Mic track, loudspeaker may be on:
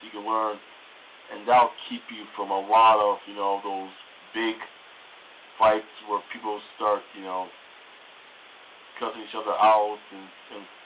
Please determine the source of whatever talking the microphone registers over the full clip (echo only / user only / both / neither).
echo only